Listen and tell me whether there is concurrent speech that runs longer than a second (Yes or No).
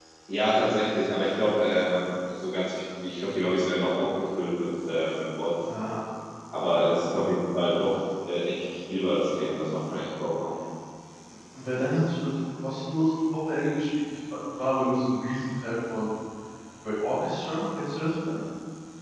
No